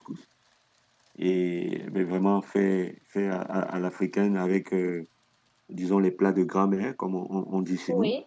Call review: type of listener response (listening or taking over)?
taking over